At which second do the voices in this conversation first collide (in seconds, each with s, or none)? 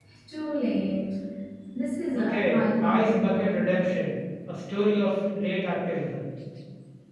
2.1 s